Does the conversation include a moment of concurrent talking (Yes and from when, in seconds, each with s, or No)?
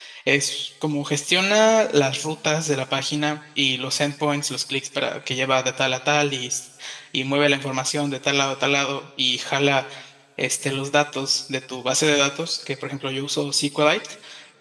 No